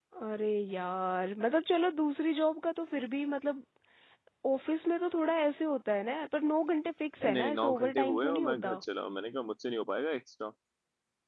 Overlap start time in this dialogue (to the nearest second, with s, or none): 7 s